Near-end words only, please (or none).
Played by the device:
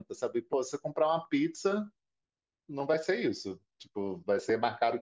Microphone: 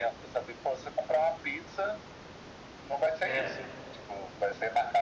É,